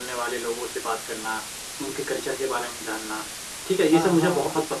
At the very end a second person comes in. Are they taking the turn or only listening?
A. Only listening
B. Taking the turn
A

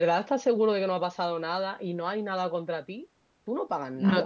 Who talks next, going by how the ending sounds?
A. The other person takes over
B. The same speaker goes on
A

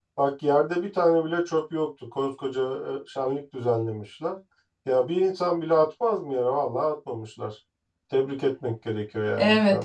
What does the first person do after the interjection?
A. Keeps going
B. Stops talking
B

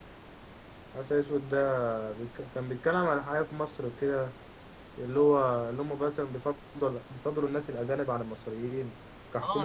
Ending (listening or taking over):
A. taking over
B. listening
A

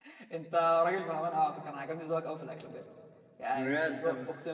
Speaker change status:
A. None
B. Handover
B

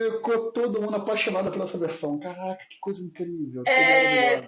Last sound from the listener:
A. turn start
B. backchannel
A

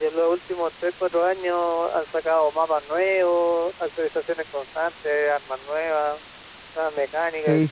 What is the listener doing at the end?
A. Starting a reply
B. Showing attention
A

